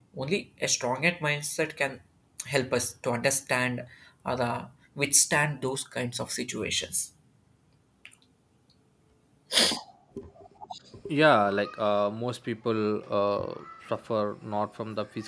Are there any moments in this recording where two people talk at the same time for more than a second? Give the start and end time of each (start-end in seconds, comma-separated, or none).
none